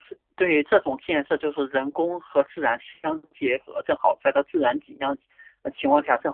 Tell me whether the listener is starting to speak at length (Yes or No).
No